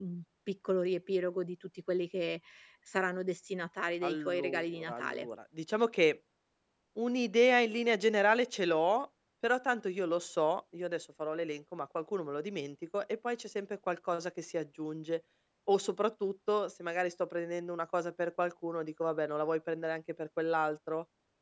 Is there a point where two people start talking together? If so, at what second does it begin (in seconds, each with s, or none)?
4.0 s